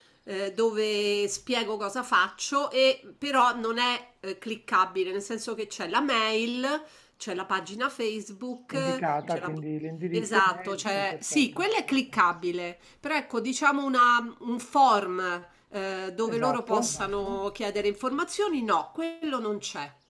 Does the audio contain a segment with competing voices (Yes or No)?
Yes